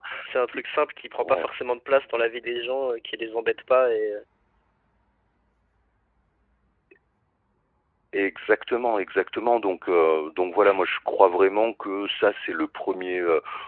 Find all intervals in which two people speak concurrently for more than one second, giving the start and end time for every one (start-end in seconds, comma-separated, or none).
none